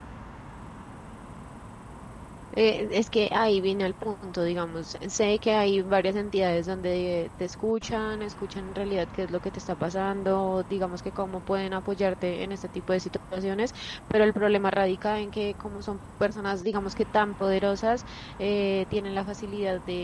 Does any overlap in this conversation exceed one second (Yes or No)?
No